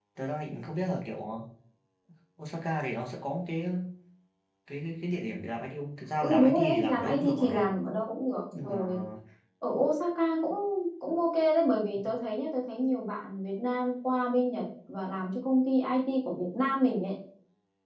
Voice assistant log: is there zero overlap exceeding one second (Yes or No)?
No